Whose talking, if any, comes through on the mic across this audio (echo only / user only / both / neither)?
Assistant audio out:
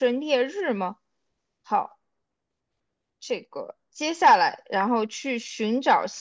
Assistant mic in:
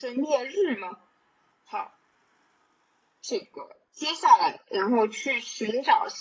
echo only